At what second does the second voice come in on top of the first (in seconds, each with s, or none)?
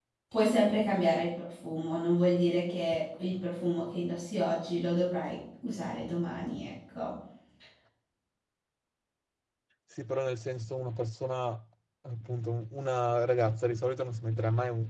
none